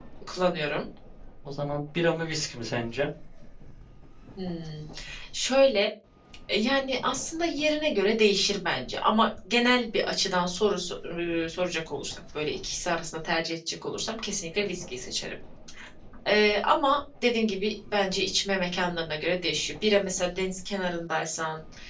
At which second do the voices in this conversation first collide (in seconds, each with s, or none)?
none